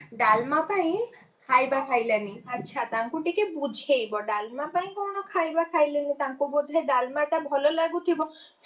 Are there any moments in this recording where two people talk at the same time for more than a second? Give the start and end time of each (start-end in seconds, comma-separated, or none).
none